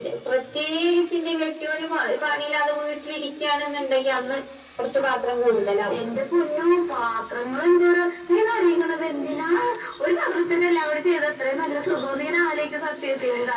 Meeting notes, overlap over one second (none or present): none